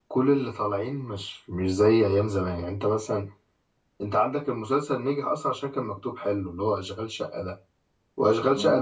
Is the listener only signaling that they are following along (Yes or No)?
Yes